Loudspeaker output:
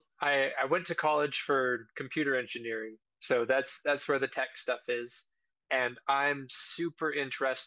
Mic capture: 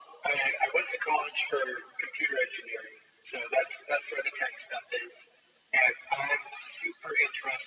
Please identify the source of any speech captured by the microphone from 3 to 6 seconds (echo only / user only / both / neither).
echo only